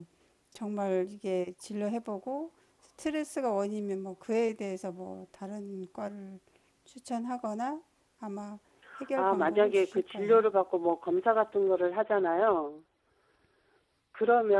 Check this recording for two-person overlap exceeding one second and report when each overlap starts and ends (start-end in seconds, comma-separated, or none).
9.2-10.5